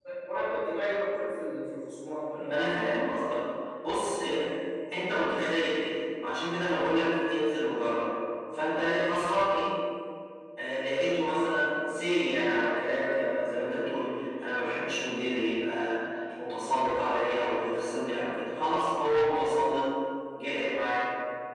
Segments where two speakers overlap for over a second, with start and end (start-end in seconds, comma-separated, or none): none